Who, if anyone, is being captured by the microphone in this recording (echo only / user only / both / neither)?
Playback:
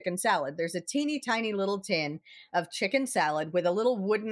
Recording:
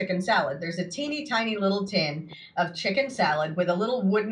echo only